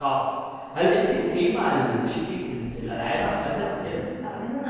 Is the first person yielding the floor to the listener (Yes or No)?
Yes